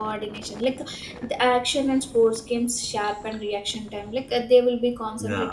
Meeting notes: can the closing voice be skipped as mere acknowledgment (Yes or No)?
Yes